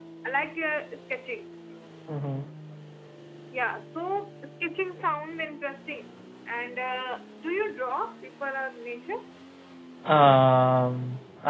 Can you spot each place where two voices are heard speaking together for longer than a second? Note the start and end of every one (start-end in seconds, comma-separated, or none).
none